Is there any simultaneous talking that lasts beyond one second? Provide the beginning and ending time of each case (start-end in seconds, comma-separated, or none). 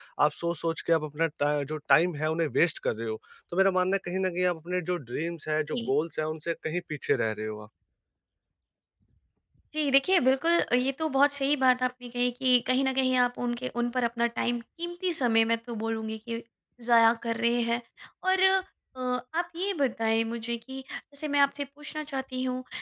none